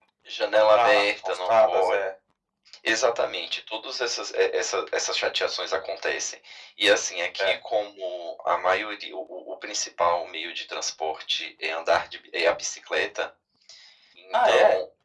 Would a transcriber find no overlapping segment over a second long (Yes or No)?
No